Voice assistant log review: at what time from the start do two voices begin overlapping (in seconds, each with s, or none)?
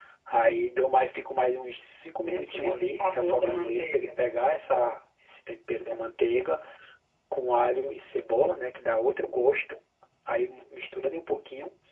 2.3 s